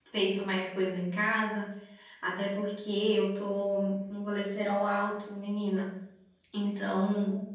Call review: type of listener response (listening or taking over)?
listening